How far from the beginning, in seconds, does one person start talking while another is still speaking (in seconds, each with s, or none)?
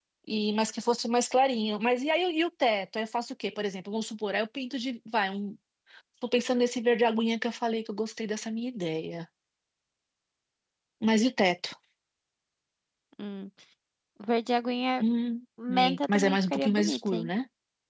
15.7 s